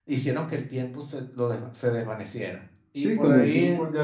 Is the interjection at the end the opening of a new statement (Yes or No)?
Yes